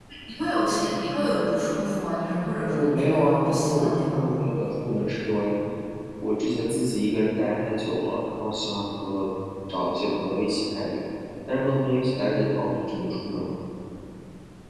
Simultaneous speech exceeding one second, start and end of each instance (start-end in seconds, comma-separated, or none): 2.6-4.3